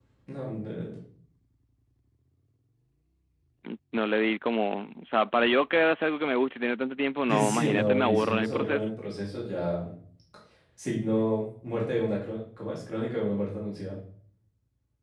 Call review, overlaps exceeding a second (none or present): present